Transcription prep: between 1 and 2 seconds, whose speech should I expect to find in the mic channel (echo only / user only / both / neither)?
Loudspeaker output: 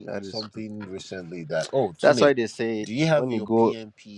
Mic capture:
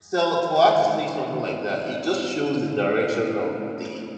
user only